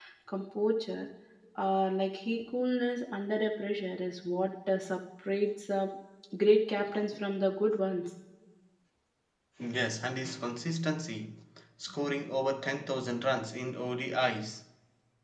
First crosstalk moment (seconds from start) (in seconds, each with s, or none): none